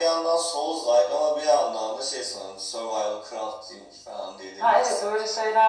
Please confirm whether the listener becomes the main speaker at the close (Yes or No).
Yes